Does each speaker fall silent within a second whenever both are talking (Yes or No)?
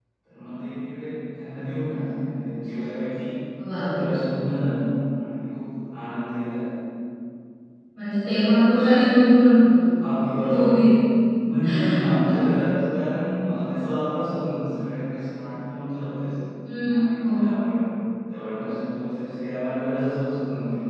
Yes